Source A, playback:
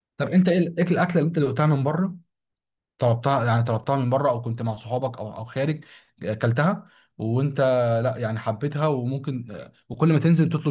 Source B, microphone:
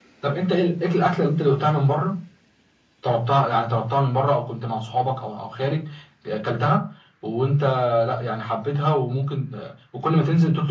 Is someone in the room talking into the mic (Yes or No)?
No